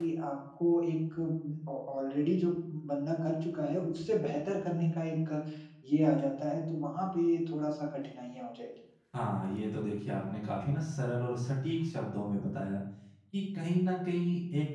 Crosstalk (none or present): none